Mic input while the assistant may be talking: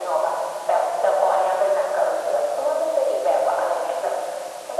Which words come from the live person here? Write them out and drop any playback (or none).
none